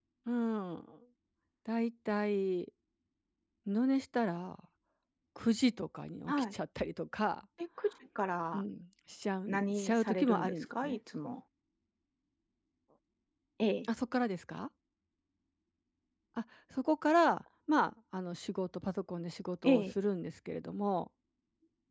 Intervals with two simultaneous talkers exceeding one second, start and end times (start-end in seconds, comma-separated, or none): 9.5-11.0